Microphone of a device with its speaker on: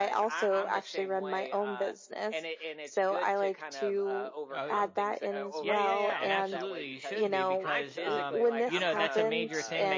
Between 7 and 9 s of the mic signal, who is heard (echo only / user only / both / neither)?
both